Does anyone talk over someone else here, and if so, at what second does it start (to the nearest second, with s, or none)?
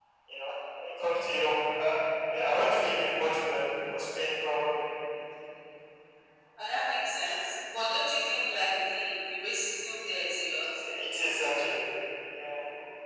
none